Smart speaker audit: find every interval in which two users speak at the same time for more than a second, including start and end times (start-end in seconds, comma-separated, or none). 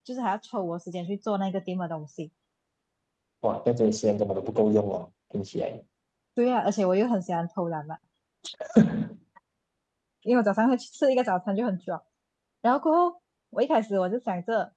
none